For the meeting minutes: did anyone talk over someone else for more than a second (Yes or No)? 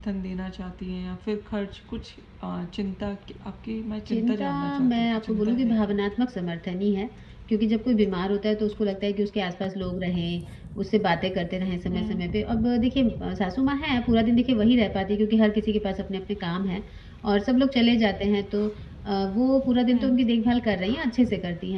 Yes